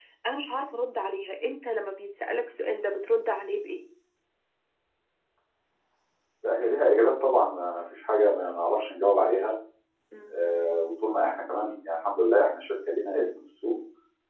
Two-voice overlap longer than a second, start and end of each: none

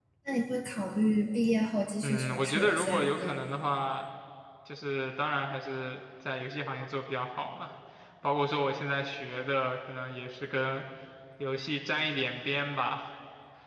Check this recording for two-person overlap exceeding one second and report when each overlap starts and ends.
2.0-3.3

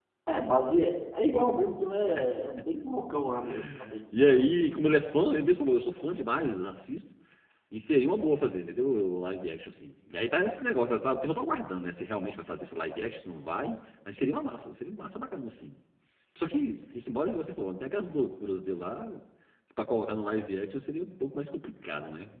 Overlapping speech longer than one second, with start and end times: none

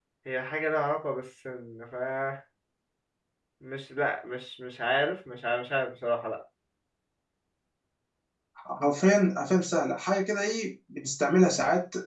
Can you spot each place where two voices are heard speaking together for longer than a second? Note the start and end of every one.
none

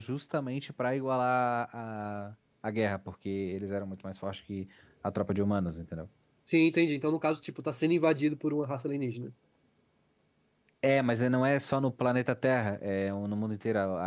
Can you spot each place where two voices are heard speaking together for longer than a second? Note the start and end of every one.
none

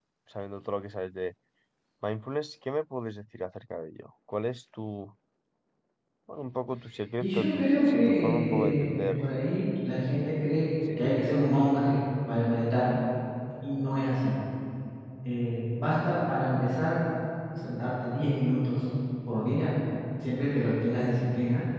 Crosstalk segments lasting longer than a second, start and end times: 7.2-9.1

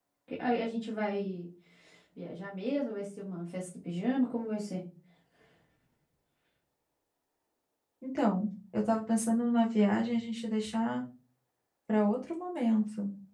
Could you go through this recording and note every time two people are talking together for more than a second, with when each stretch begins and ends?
none

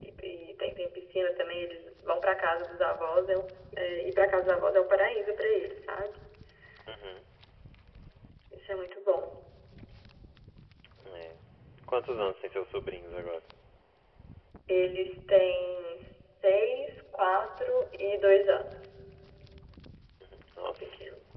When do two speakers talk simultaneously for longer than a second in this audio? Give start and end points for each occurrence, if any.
none

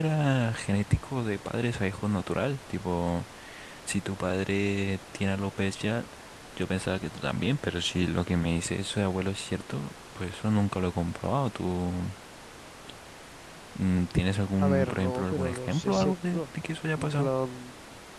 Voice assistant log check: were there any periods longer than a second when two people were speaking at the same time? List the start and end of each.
14.6-16.4

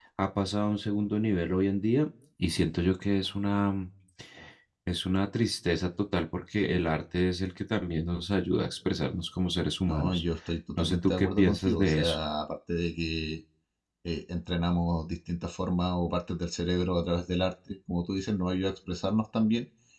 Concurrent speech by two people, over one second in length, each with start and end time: 10.8-12.2

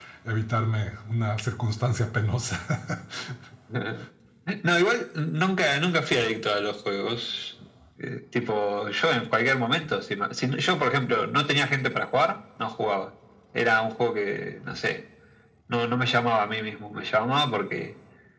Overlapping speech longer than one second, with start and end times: none

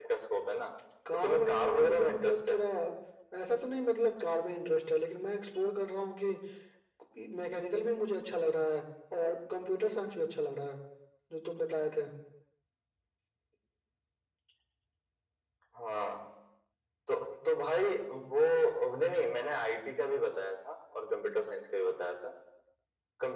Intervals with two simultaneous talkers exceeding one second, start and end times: 1.2-2.6

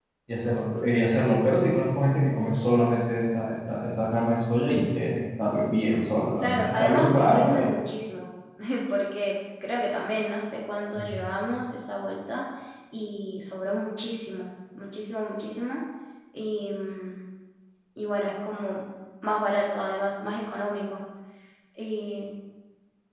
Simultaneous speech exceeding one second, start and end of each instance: 6.4-7.7

